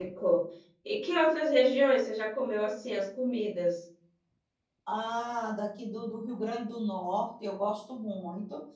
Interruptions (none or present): none